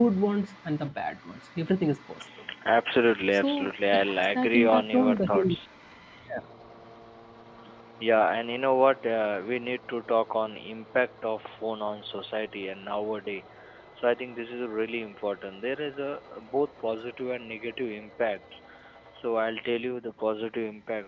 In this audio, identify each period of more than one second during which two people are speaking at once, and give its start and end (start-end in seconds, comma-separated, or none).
3.3-5.6